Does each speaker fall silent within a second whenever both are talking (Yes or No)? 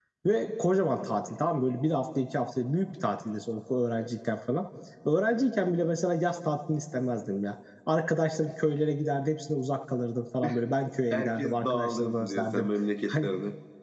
No